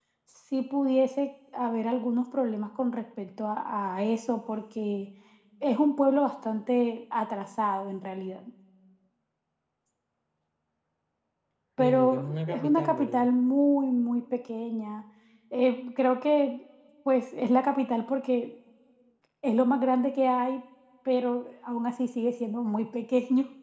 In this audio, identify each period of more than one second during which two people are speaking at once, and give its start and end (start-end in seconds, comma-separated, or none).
11.8-13.3